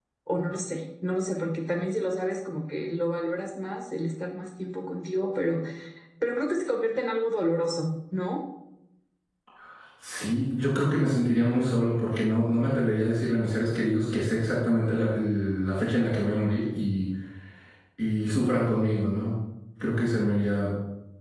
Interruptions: none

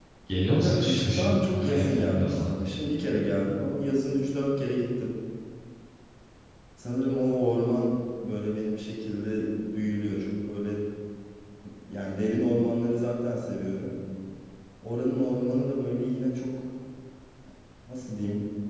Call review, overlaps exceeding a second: present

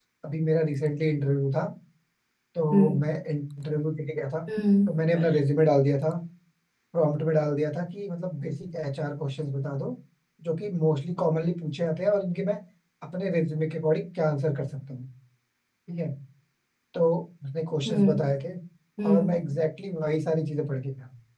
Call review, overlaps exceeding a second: none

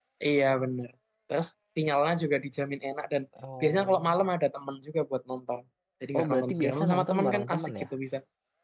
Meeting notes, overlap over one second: present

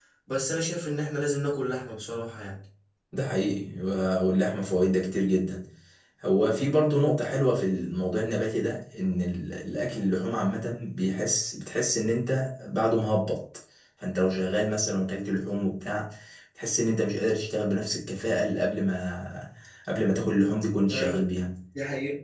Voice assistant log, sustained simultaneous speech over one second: none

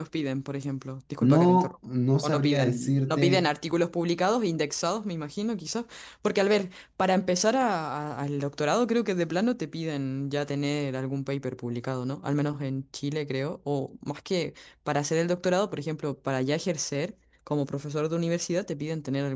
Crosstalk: present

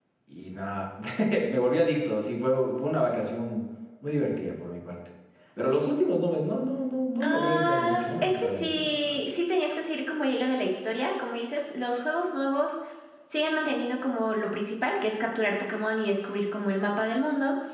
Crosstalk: present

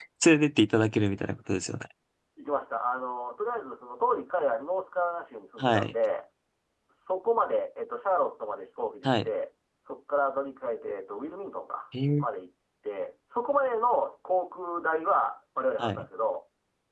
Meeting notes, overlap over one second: none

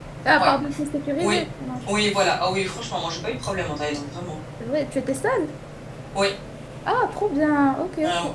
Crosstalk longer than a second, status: none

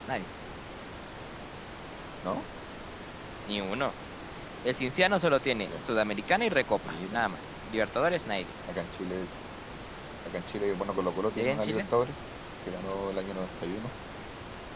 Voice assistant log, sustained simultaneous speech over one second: none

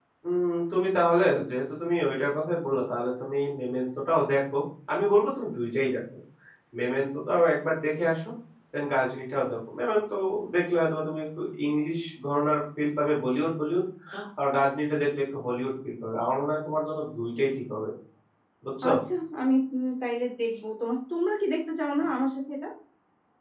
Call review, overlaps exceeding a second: none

